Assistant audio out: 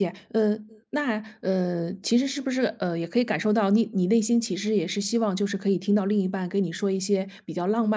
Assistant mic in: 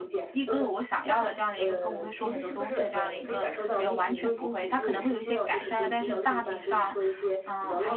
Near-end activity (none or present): present